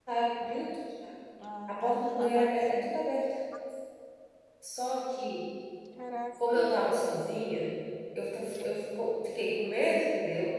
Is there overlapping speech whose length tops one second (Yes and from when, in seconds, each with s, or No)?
Yes, from 1.7 s